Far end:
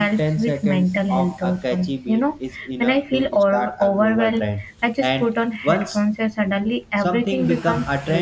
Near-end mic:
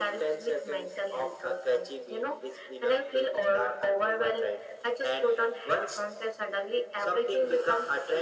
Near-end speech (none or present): none